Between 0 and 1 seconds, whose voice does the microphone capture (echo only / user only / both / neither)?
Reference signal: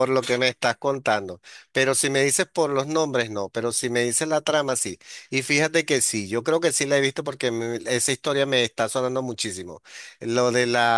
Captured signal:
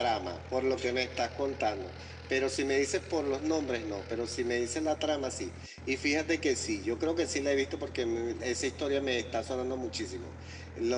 echo only